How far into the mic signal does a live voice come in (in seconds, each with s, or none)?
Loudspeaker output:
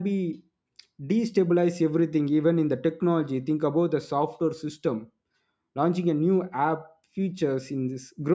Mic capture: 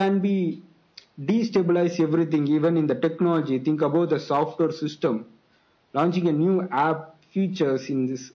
none